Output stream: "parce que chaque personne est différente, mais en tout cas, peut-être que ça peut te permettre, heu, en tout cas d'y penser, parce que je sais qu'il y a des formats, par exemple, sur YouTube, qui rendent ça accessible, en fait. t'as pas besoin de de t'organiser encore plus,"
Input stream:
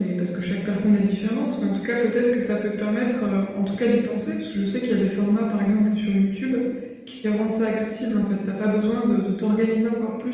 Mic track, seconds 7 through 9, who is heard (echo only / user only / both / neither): echo only